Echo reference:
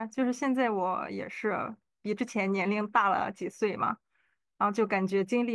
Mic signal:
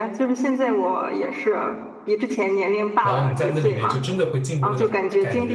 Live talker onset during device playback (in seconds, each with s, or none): 3.0 s